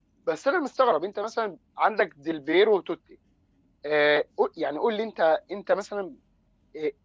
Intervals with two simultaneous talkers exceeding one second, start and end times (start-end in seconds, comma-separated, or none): none